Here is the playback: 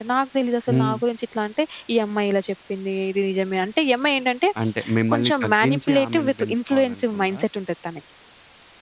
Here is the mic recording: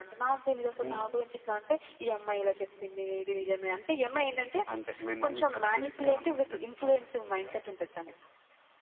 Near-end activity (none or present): none